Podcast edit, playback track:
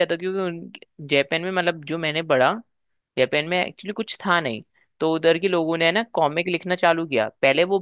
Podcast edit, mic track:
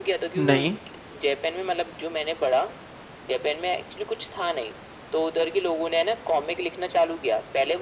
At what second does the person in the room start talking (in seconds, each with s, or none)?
0.4 s